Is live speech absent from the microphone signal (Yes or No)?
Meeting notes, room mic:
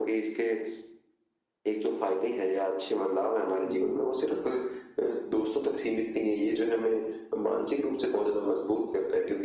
No